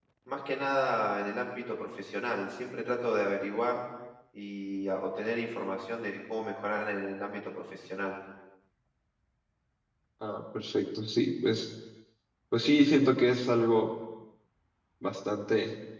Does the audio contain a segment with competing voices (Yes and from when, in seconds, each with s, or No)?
No